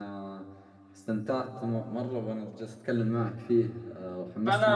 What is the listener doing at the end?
taking over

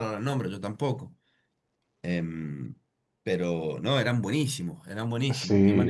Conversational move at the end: taking over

